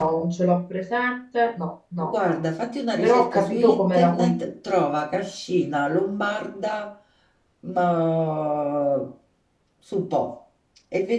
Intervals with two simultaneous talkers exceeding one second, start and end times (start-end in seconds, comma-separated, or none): 3.0-4.5